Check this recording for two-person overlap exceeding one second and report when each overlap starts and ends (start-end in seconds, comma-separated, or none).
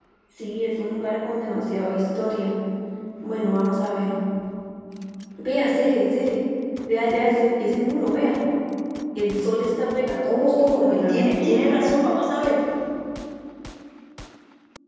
10.2-11.7